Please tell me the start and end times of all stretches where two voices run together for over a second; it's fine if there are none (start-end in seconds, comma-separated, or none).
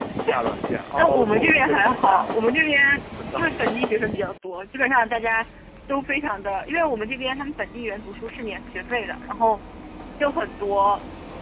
1.0-2.3